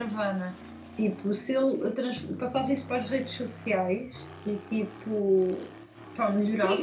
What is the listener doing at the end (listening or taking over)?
taking over